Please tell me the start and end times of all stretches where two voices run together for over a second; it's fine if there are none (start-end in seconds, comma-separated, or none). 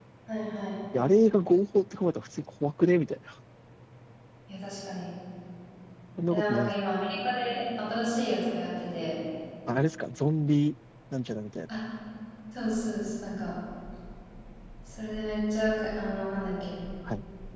none